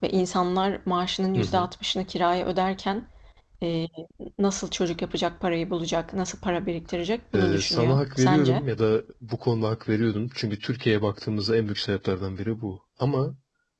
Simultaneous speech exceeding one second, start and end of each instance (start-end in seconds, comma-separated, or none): 7.3-8.6